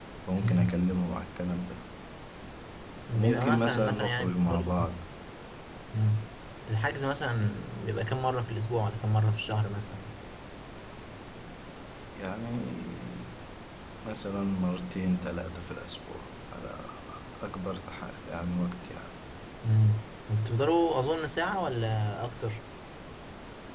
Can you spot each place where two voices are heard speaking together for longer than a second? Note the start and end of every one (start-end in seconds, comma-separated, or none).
3.1-4.7